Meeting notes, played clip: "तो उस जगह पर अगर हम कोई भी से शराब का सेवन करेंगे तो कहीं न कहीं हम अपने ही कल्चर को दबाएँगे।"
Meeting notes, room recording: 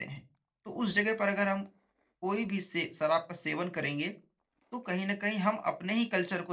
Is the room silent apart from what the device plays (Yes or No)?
Yes